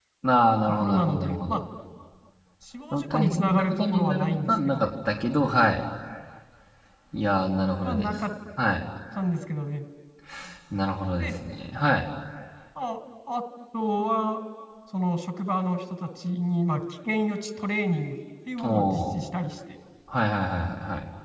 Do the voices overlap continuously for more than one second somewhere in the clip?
Yes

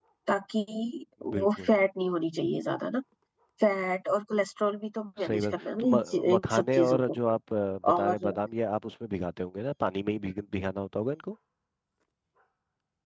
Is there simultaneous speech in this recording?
Yes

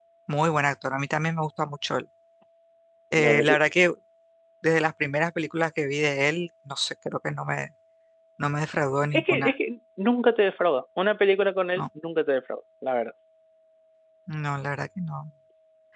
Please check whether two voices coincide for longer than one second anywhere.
No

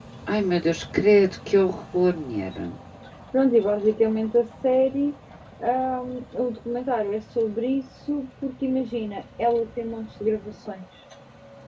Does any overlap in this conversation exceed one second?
No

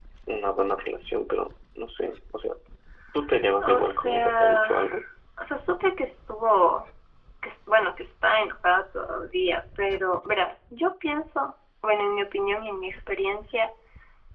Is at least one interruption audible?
Yes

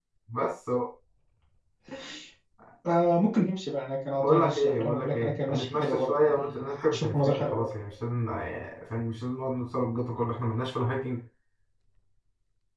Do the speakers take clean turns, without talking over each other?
No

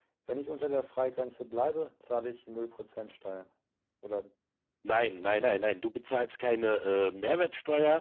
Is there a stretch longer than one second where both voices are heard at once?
No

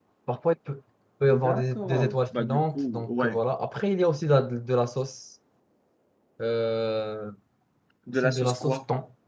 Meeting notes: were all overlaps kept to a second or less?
No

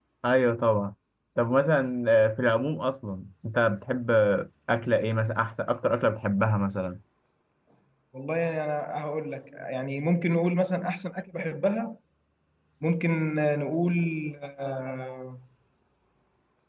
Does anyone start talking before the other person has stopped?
No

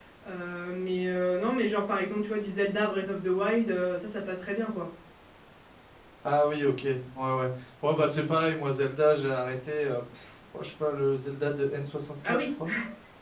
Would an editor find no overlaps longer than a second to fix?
Yes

